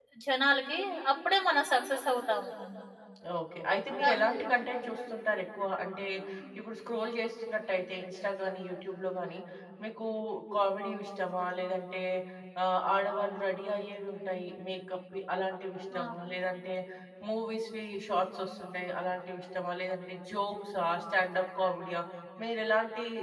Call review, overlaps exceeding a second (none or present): none